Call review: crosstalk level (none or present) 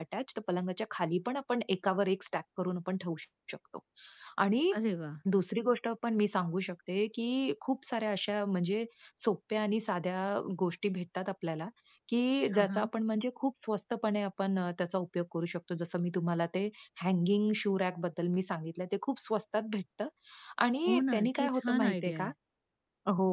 present